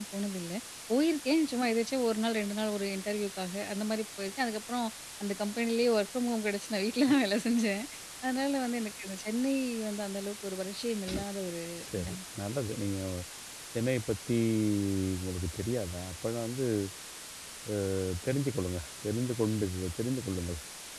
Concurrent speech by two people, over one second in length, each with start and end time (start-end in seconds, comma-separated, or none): none